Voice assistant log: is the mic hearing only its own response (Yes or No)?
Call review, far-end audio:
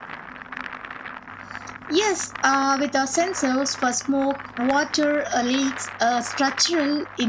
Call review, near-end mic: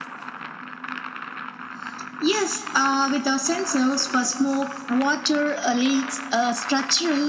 Yes